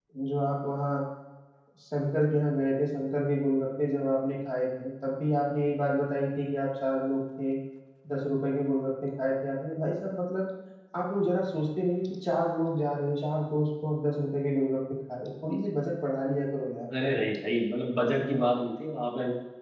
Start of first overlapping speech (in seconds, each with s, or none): none